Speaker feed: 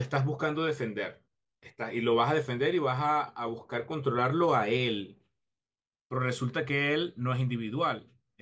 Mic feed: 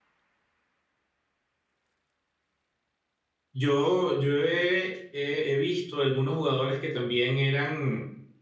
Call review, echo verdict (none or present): none